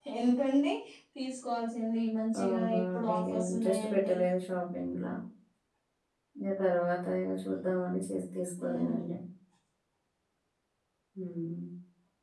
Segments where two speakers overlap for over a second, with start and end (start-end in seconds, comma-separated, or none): 2.4-4.2